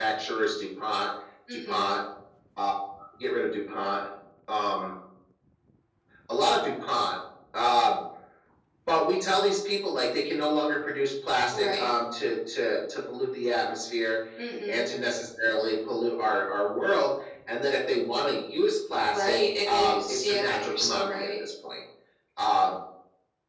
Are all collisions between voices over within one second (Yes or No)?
No